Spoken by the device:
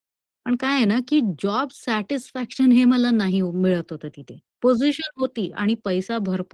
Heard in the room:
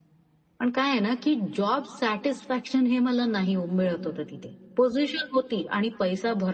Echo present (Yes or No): Yes